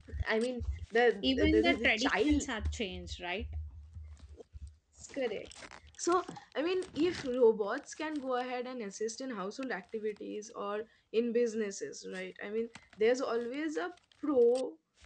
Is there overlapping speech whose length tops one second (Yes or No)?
Yes